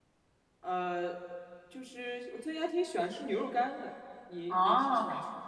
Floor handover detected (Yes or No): Yes